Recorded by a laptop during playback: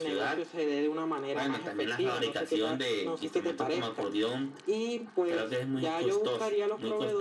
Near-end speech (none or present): none